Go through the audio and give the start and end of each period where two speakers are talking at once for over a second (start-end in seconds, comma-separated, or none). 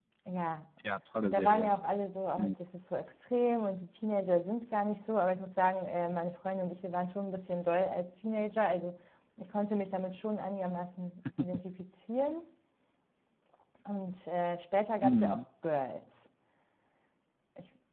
none